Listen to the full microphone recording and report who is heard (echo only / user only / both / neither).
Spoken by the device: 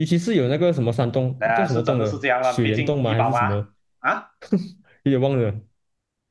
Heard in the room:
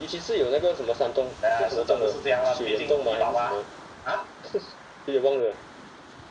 echo only